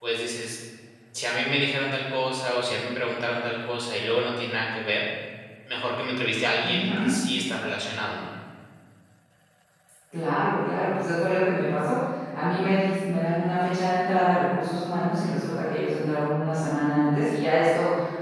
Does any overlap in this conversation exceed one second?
No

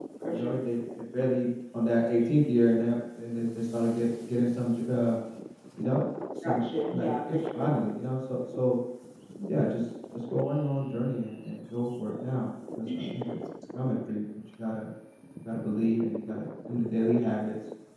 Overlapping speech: Yes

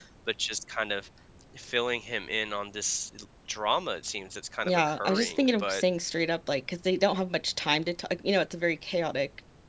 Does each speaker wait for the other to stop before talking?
No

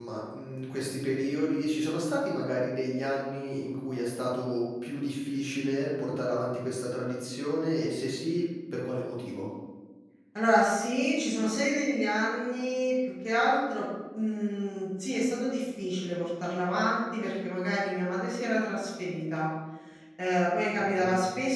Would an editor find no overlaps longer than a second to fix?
Yes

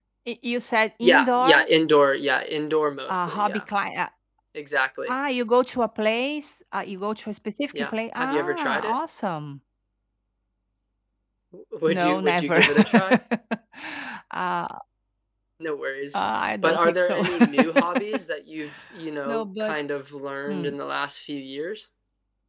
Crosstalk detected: Yes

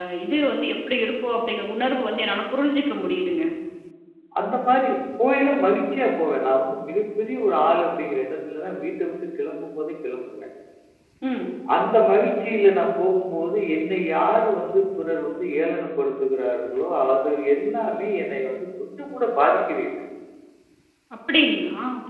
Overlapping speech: No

